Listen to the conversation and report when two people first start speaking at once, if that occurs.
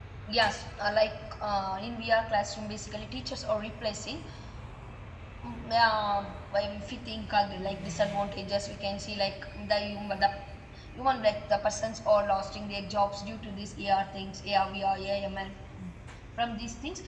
none

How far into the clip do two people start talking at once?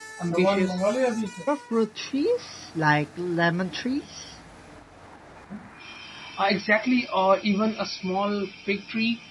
none

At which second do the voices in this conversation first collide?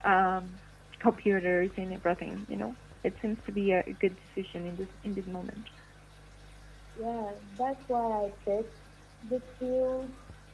none

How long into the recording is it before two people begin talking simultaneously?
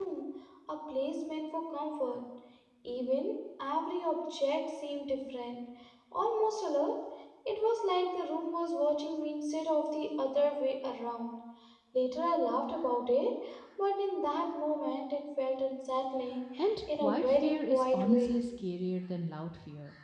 16.9 s

